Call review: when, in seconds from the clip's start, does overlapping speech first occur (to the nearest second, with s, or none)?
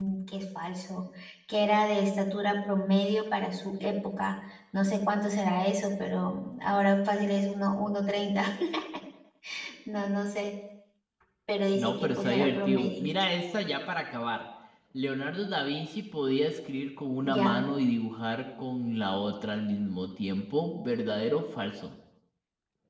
12 s